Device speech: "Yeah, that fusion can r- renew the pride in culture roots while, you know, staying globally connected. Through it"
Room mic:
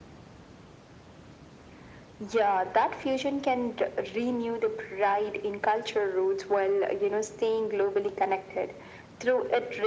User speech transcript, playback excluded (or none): none